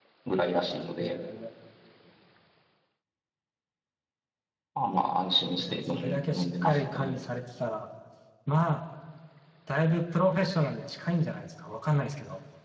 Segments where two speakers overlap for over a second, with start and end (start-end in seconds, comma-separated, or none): 5.6-7.2